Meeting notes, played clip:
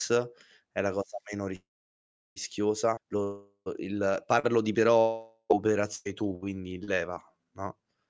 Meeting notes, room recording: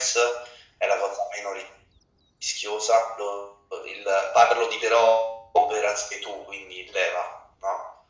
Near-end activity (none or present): none